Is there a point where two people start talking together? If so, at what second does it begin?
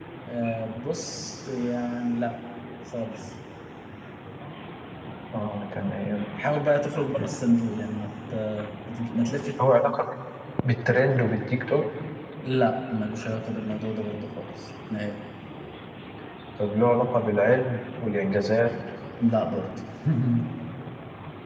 none

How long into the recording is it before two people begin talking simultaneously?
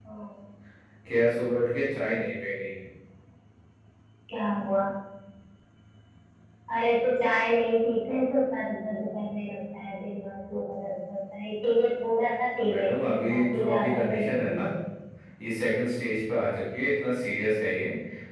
12.6 s

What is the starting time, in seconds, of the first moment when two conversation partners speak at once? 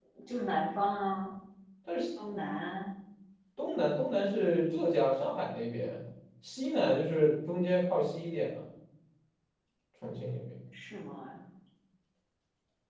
none

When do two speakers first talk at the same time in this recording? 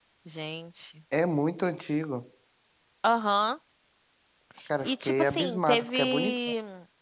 4.9 s

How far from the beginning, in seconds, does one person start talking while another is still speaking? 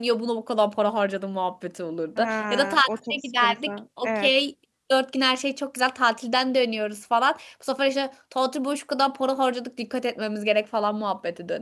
2.2 s

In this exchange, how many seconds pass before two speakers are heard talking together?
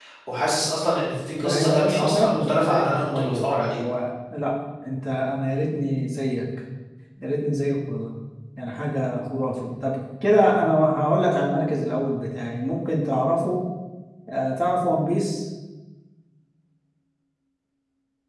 1.4 s

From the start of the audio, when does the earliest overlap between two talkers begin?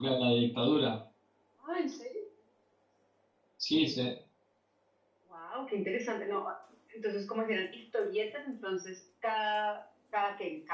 none

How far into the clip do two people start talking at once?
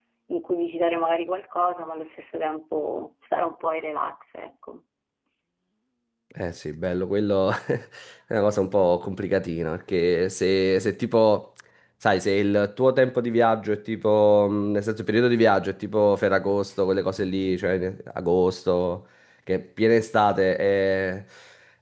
none

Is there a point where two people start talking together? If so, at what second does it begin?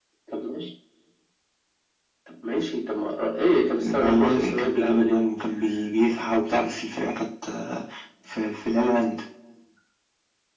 3.8 s

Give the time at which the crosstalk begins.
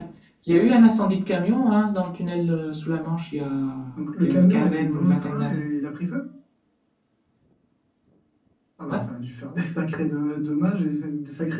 4.2 s

